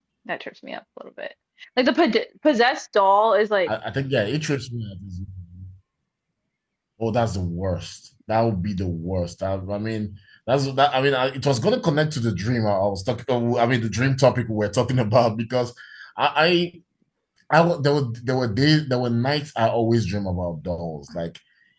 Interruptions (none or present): none